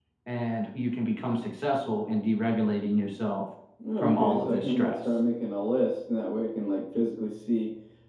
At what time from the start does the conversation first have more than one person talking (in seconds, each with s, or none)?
4.0 s